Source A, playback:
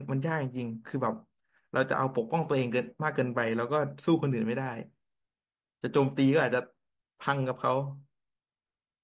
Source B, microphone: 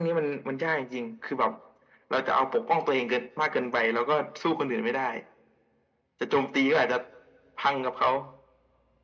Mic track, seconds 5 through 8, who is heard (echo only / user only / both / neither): echo only